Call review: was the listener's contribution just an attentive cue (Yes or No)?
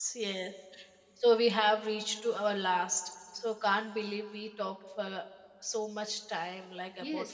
No